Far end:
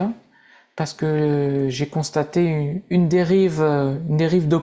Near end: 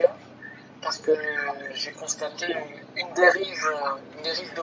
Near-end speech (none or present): none